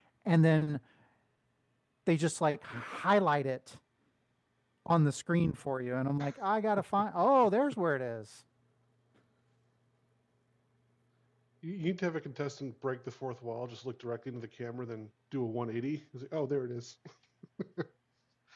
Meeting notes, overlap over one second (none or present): none